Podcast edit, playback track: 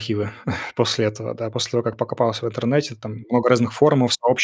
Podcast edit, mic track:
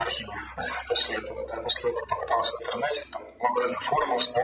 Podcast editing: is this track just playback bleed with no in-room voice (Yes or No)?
Yes